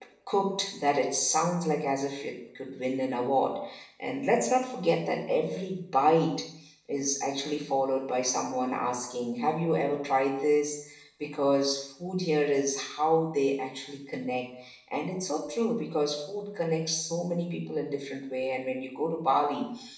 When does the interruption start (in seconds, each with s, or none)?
none